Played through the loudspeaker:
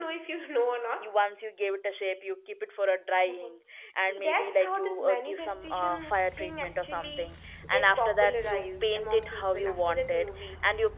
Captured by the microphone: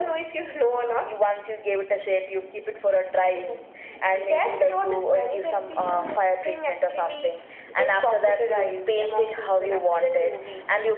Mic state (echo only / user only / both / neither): echo only